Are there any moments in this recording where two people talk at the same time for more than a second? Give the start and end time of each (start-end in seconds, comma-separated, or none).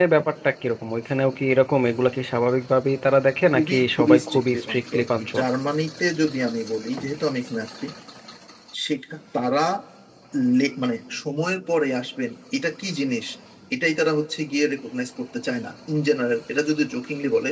3.5-5.4